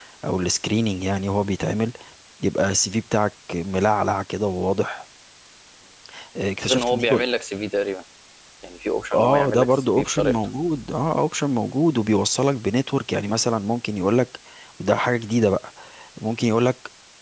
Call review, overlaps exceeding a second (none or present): present